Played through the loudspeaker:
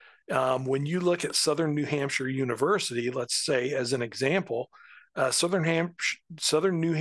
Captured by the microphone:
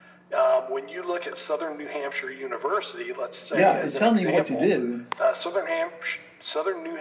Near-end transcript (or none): yeah. And tell me what to do.